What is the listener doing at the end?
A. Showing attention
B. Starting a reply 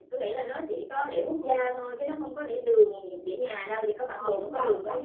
B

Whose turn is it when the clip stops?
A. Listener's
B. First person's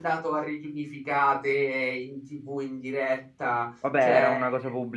A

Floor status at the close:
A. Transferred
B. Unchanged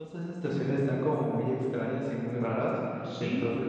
B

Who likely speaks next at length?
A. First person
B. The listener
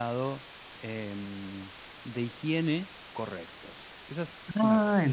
B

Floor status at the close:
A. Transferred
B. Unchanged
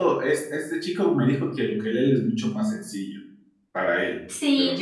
A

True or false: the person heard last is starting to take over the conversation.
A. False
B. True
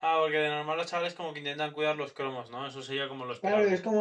B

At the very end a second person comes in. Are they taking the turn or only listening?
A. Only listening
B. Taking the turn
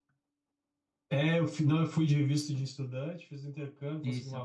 A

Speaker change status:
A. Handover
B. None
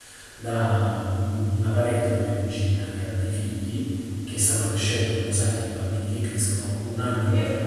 B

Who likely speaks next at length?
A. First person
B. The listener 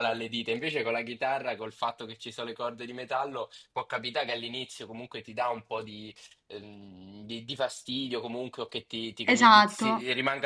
A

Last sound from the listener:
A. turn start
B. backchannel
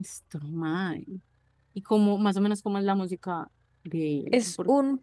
A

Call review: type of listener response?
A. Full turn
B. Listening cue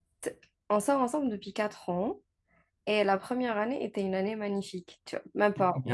A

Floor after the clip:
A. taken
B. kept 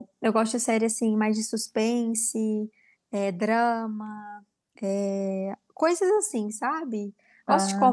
B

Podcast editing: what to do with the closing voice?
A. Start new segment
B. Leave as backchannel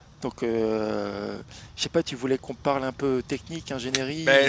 A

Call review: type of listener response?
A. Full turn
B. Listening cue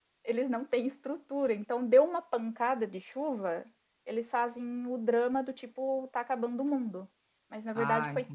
B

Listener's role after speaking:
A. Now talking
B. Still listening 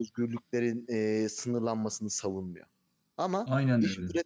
B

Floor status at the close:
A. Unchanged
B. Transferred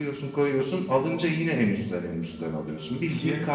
A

